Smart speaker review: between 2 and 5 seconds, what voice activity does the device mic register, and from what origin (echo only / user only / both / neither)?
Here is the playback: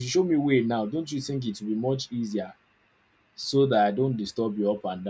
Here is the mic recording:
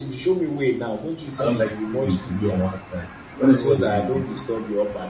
both